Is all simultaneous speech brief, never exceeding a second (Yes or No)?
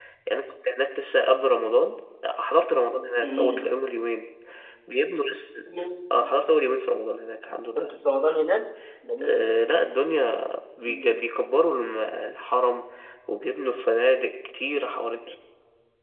Yes